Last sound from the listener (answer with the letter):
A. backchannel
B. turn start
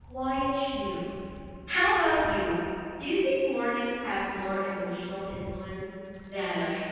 B